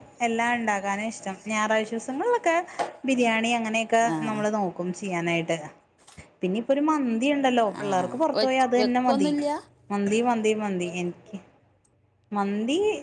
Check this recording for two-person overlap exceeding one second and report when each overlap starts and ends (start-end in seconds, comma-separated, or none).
7.8-9.3